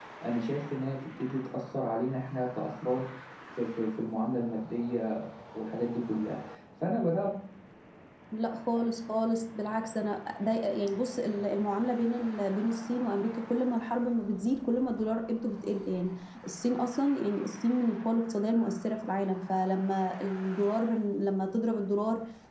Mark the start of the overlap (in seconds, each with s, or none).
none